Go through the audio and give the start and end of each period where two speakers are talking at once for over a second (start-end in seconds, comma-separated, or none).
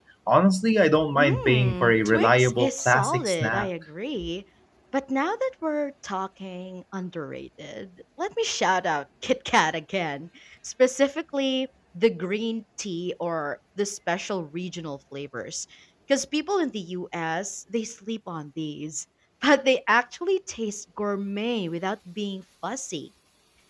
1.2-3.7